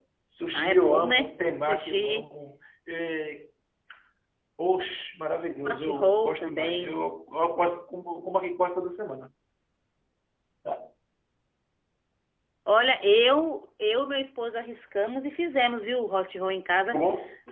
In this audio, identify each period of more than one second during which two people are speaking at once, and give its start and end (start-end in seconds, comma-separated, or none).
0.5-2.3, 5.6-7.0